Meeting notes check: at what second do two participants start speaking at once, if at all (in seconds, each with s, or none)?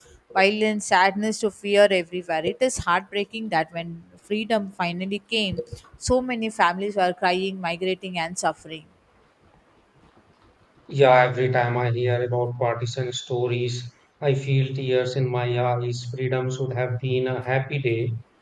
none